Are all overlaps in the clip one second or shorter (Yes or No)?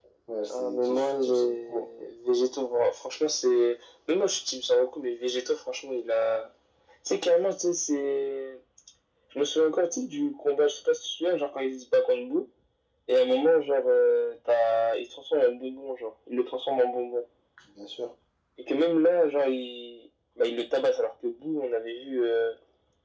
No